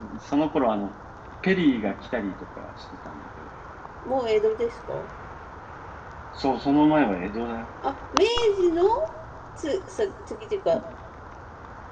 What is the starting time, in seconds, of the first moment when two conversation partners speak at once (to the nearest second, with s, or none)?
none